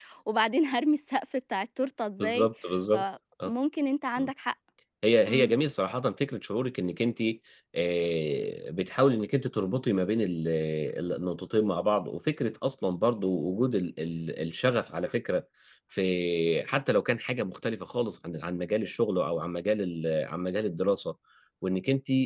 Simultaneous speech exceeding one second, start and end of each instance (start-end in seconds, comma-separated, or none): none